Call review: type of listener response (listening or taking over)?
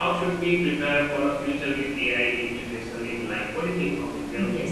taking over